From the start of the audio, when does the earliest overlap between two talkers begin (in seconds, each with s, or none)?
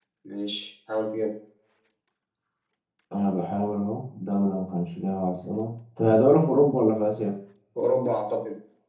none